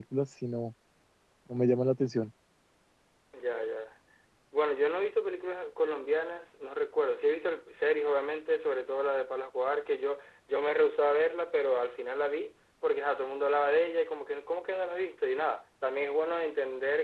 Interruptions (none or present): none